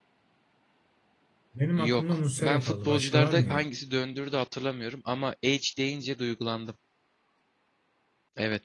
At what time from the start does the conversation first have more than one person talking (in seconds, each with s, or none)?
1.8 s